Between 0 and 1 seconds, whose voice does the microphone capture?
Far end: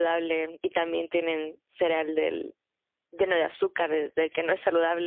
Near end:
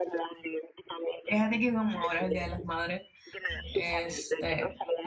echo only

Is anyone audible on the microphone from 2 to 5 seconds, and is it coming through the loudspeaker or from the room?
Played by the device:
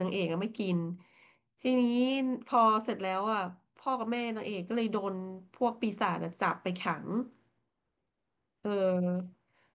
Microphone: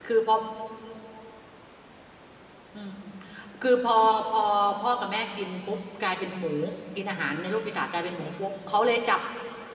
user only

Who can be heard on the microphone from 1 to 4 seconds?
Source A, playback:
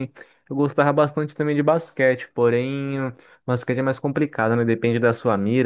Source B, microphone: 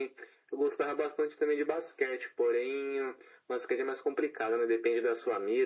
echo only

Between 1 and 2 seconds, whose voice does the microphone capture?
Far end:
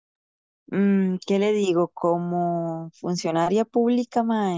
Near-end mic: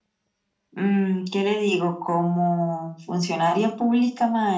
echo only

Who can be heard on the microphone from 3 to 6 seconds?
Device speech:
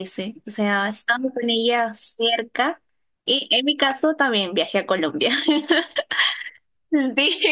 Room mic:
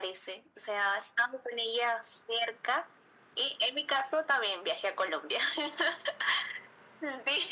echo only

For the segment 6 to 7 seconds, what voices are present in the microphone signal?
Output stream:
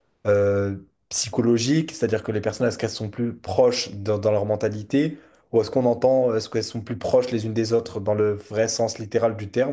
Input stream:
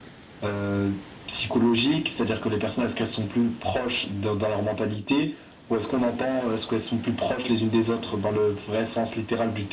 echo only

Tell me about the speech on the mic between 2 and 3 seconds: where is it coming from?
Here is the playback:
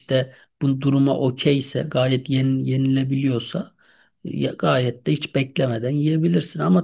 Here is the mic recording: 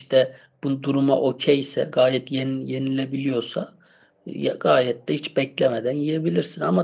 echo only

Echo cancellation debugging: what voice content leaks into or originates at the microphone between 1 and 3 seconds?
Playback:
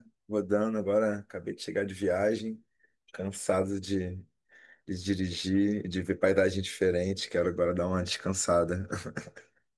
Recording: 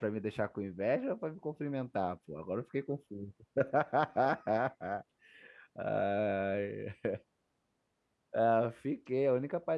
user only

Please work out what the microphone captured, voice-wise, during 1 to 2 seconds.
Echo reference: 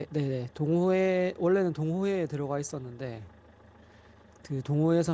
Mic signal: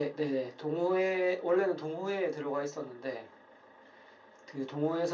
echo only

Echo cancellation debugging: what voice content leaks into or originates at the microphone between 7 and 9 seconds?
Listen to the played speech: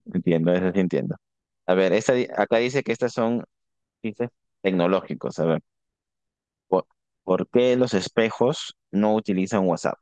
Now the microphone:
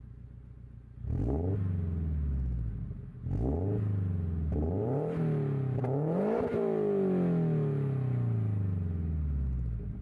neither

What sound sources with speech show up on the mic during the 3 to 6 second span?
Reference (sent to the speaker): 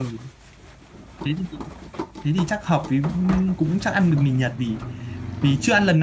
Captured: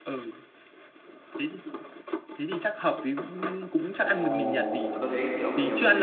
both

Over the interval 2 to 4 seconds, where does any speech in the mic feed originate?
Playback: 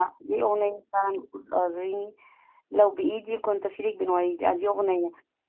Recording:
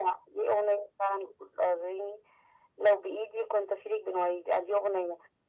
echo only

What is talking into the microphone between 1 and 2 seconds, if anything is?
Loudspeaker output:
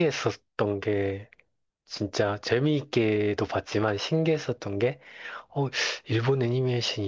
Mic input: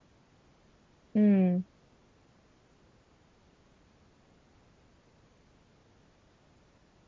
user only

